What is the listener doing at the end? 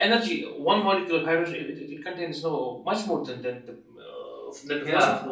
taking over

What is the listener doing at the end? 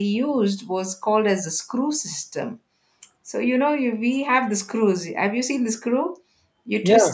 listening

